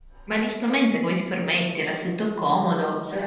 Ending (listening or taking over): taking over